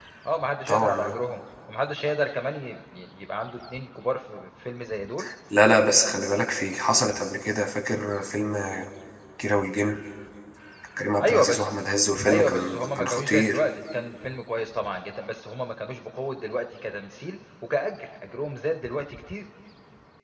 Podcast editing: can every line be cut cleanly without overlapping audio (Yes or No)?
No